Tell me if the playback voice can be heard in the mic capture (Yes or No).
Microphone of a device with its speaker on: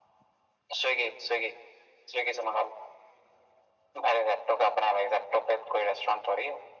Yes